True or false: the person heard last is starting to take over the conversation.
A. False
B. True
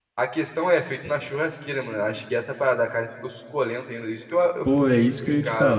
B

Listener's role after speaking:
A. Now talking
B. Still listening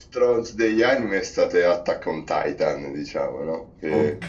B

